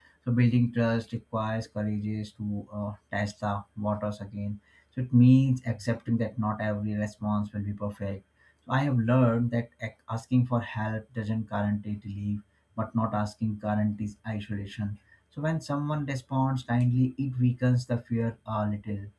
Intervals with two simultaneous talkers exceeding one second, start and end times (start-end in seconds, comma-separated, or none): none